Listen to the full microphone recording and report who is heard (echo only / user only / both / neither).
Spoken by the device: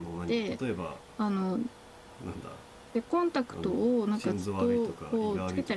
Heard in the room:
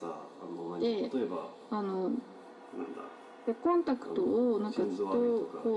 echo only